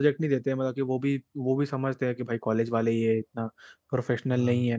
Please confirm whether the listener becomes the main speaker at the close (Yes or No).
No